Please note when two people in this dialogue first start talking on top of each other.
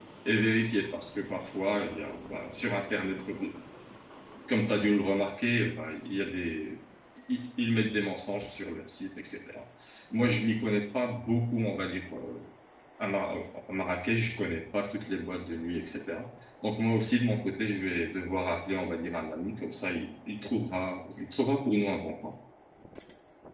none

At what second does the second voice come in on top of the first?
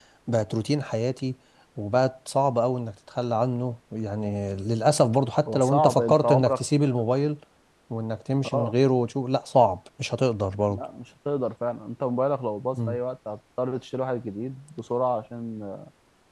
5 s

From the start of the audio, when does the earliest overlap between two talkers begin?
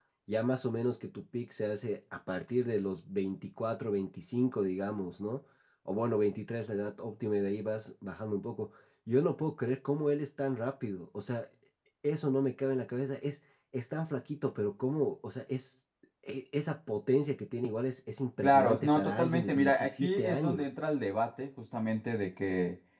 18 s

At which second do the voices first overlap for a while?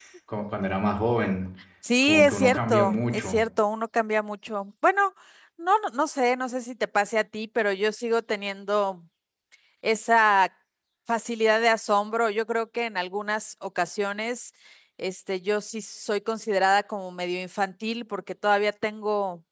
2 s

